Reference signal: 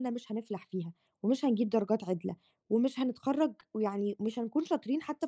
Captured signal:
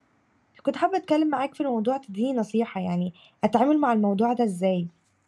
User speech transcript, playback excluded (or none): كنت حابة أتكلم معاك في الموضوع تدّيني نصيحة يعني أتعامل مع الموضوع ده إزاي؟